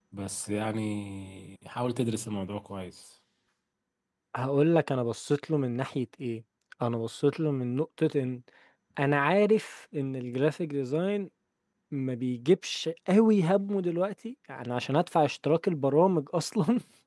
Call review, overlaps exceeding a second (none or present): none